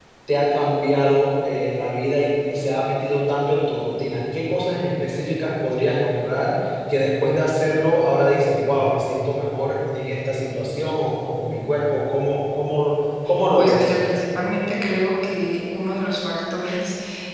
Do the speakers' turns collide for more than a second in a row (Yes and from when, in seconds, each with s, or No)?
No